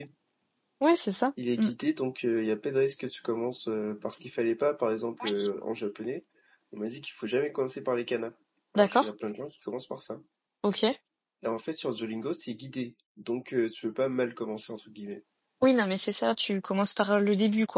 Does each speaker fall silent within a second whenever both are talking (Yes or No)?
Yes